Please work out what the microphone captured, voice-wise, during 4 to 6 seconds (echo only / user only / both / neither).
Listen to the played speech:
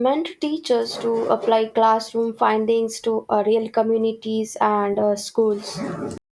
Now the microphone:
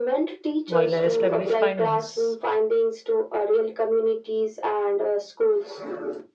echo only